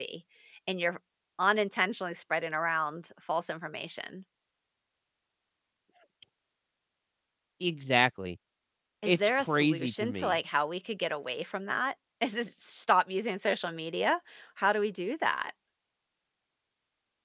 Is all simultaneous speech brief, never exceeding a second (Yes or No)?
No